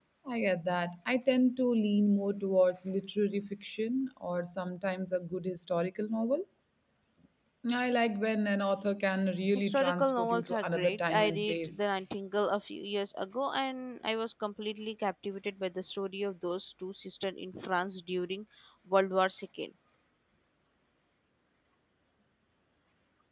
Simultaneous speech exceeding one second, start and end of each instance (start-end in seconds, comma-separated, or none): 9.6-11.8